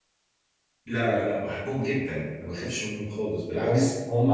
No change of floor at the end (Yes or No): No